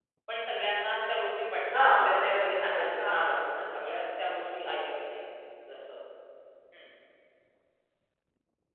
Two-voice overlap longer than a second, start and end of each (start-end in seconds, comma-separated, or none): 1.7-3.3